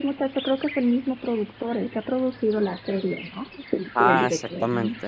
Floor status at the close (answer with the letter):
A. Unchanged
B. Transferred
B